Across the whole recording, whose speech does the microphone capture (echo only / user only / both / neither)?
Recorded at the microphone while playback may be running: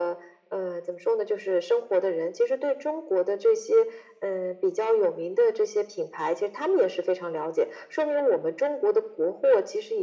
echo only